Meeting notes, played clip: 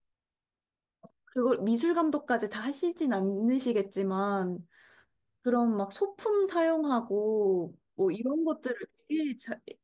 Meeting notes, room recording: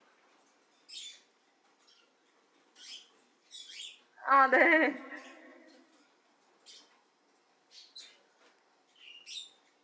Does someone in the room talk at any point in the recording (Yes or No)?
Yes